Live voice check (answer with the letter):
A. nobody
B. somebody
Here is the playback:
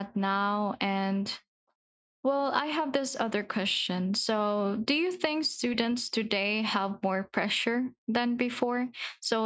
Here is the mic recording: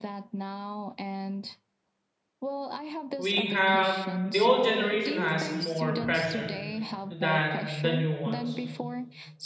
B